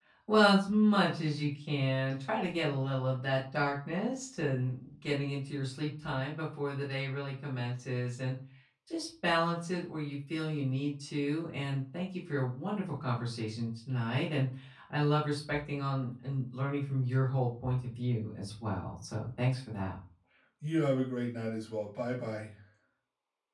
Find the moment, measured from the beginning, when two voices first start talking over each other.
none

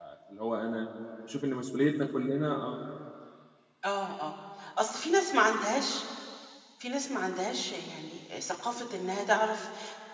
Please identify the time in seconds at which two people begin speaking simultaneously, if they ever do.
none

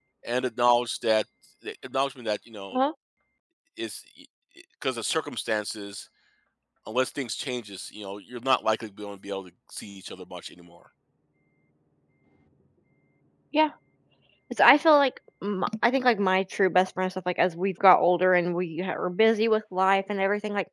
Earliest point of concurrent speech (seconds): none

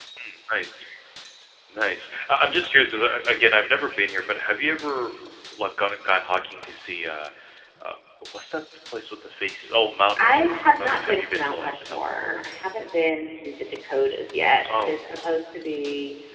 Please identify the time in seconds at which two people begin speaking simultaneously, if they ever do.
10 s

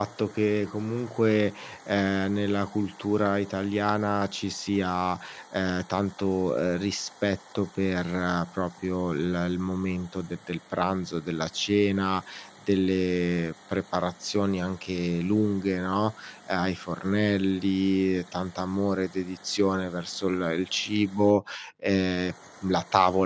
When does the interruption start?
none

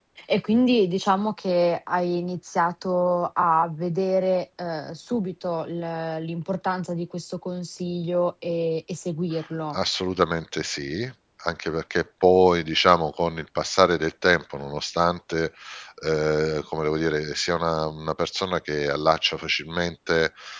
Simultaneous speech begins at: none

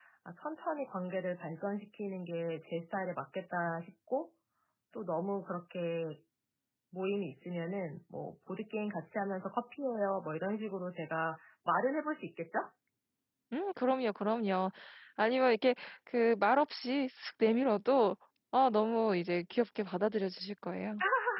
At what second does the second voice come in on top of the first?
none

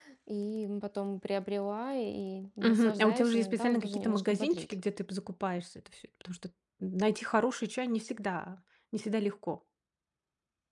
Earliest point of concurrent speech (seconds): 3 s

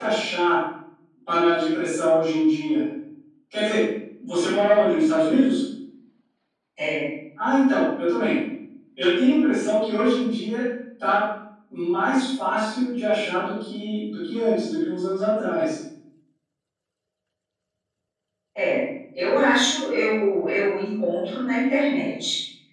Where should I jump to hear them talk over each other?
none

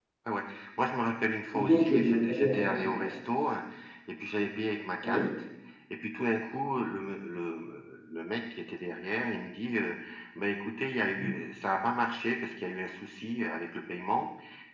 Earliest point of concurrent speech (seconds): 2 s

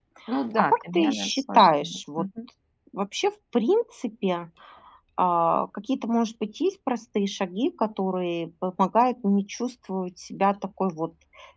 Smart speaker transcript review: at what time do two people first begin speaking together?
1 s

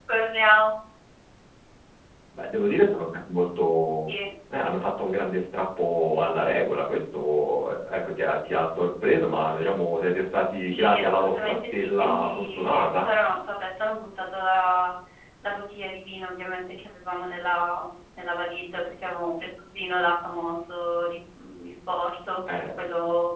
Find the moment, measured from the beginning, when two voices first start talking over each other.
11 s

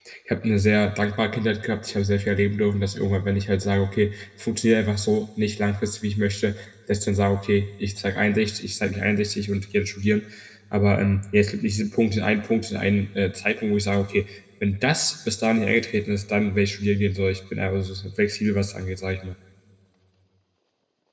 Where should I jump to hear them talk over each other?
none

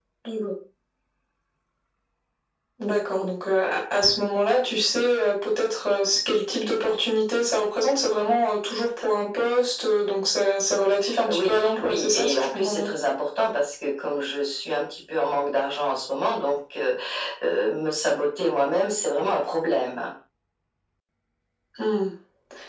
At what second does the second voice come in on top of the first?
11 s

